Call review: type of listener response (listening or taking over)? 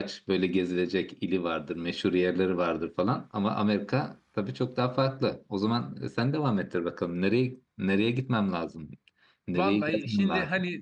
taking over